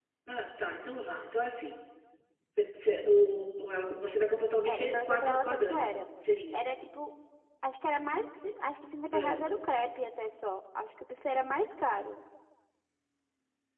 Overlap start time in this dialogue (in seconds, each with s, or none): 4.7 s